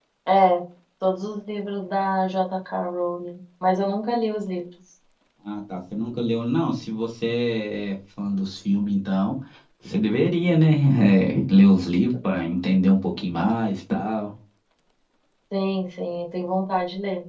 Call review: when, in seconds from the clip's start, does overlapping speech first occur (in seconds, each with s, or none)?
none